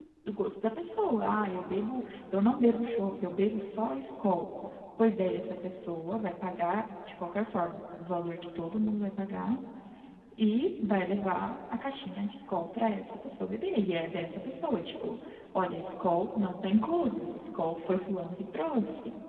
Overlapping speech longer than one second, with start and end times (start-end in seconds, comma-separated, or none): none